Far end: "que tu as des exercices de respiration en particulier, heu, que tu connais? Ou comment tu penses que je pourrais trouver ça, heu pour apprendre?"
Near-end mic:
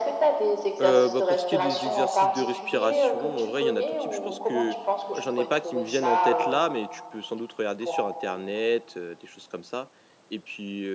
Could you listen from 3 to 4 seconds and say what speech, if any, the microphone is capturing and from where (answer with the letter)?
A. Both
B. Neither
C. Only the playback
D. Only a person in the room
A